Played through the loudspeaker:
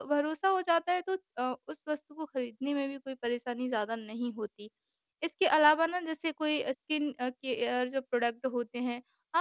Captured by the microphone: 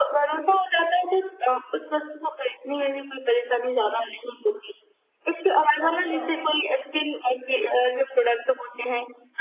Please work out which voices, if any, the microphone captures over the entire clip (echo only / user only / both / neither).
both